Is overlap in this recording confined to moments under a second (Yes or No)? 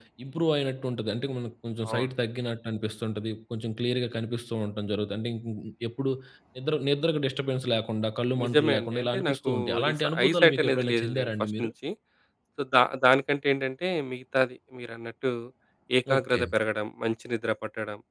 No